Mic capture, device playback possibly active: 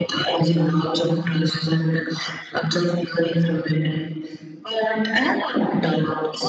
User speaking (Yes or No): No